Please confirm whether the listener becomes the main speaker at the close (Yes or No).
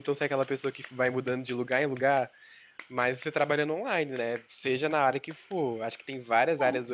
No